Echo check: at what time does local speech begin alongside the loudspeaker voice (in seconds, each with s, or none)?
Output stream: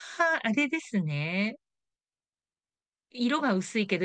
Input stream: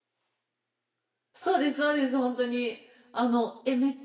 1.3 s